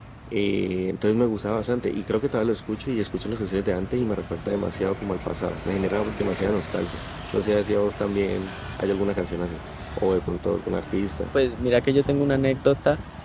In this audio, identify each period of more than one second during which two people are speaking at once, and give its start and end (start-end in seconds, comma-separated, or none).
none